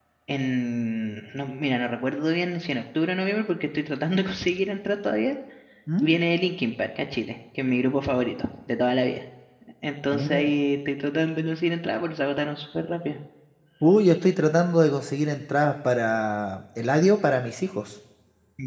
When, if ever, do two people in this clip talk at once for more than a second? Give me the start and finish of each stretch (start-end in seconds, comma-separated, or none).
none